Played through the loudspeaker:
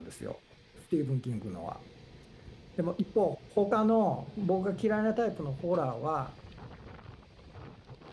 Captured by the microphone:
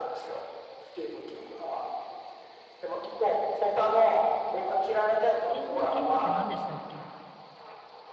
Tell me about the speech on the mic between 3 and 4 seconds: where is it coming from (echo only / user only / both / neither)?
echo only